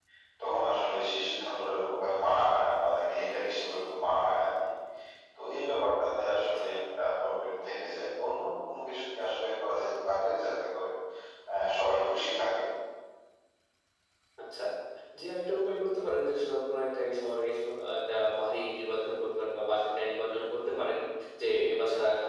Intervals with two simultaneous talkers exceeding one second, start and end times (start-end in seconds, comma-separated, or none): none